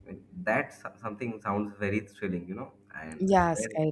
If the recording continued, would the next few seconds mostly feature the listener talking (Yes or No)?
Yes